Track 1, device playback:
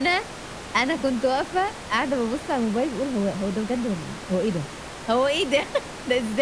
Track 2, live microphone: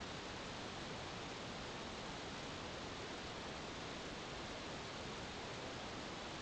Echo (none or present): none